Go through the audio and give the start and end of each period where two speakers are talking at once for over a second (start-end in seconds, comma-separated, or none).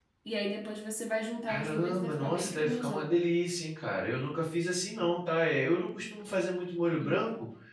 1.5-3.1